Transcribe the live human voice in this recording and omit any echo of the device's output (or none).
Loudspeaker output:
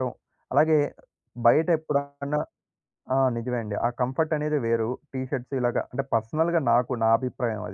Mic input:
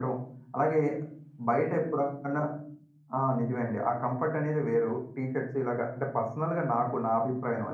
none